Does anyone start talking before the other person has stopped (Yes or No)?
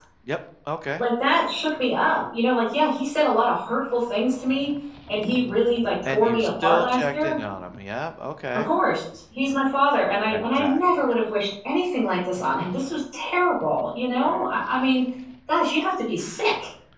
Yes